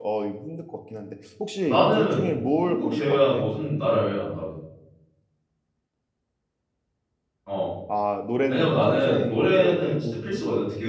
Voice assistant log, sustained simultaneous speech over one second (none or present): present